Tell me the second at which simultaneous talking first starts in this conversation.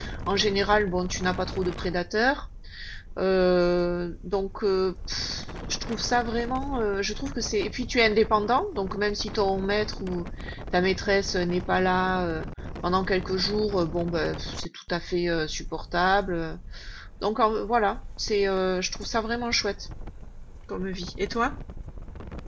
none

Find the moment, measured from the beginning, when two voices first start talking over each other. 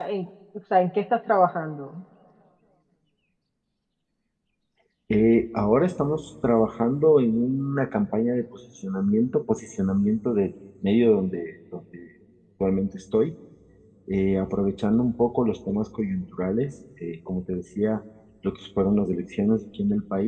none

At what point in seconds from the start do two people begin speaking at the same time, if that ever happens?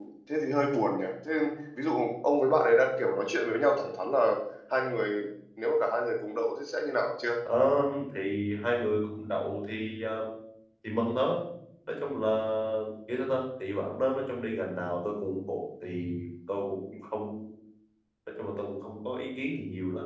none

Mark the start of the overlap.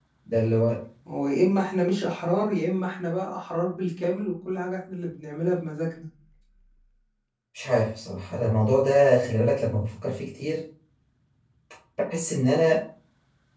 none

